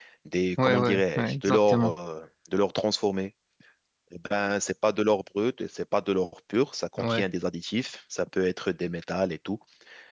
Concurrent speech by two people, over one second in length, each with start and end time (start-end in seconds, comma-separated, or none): 0.6-1.9